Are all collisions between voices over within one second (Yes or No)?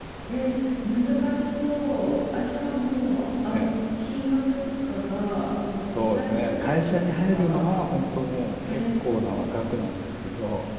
No